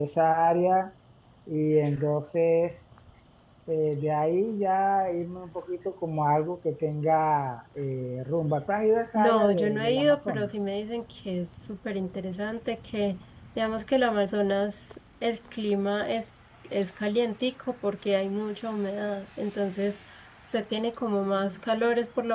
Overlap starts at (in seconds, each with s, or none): 9.2 s